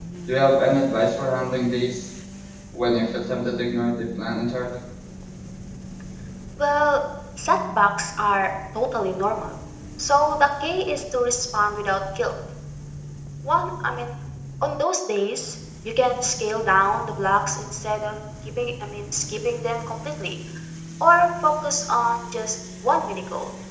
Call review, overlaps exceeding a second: none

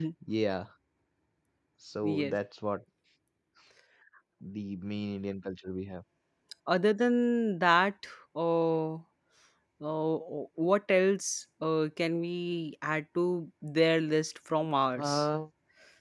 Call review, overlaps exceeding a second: none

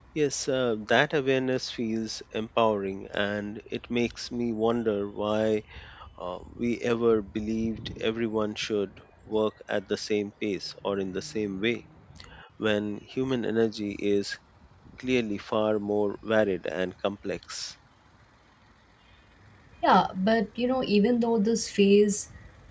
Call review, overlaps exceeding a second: none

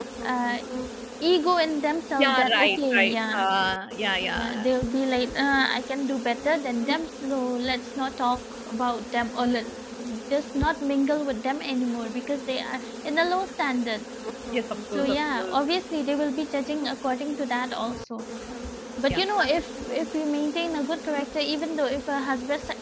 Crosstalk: present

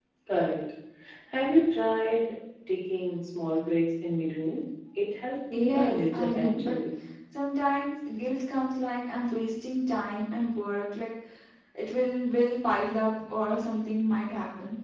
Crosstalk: present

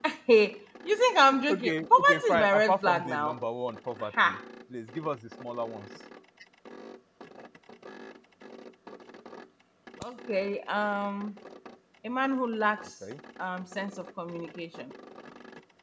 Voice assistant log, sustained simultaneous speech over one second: present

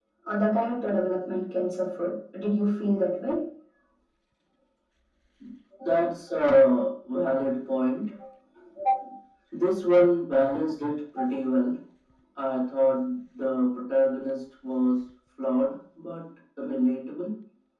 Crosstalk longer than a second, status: none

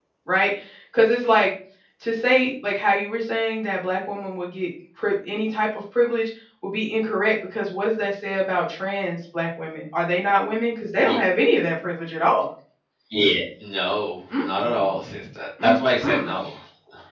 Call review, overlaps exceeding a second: none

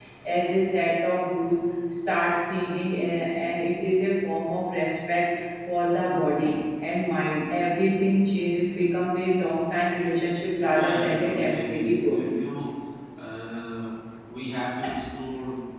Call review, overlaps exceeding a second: present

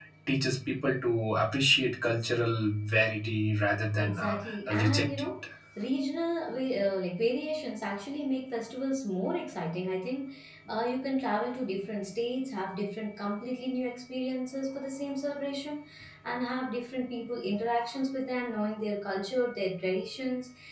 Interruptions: present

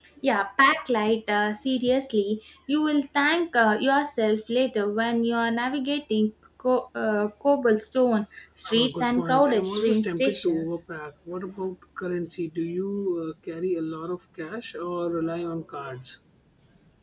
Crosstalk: present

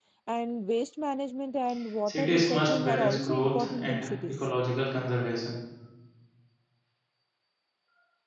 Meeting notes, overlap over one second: present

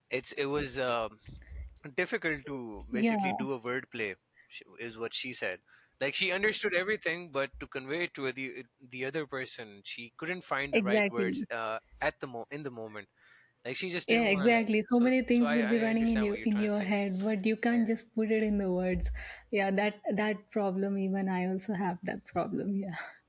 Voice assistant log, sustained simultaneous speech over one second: present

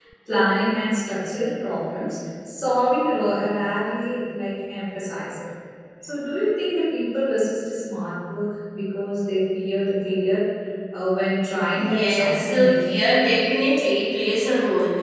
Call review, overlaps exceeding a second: present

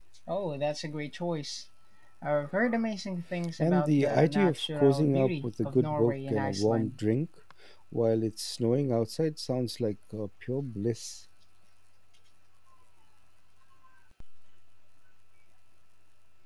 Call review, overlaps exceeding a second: present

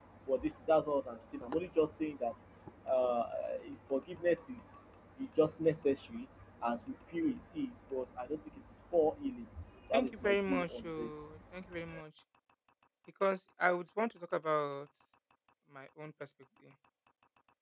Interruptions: present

